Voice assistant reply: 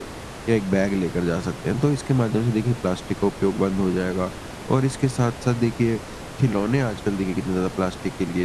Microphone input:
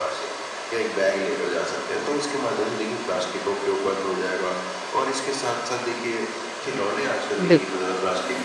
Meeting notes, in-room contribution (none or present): present